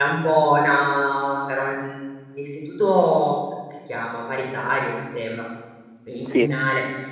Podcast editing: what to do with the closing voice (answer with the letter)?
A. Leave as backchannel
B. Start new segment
A